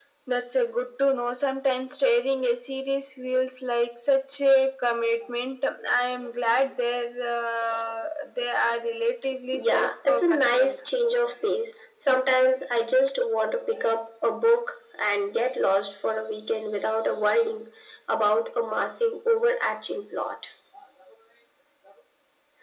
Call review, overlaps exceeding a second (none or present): present